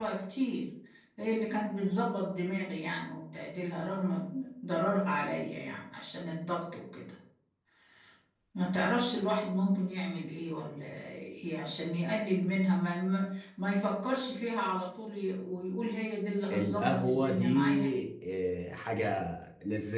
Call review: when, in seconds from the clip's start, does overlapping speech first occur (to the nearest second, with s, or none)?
17 s